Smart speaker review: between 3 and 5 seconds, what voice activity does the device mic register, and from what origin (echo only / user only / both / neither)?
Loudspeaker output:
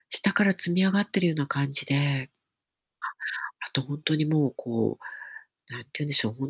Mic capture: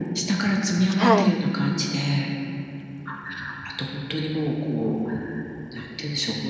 echo only